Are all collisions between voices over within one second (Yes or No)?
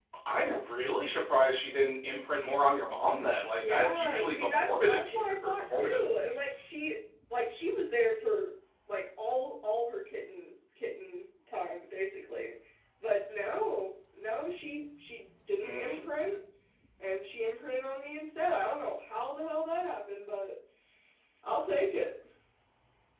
No